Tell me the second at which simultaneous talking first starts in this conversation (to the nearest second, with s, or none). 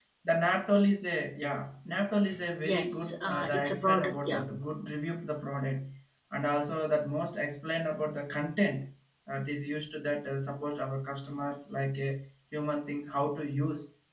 3 s